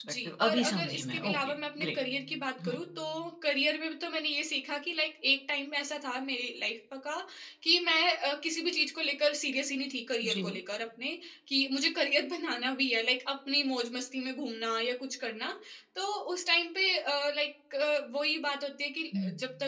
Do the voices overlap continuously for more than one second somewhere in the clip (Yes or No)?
Yes